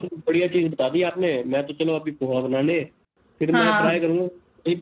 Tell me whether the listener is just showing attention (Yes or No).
Yes